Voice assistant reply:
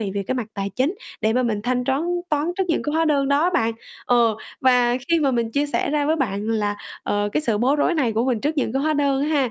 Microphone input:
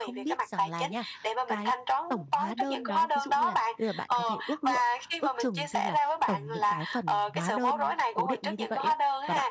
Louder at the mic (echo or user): echo